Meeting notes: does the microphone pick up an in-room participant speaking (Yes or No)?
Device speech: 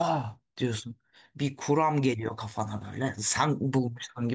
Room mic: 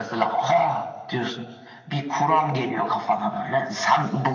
No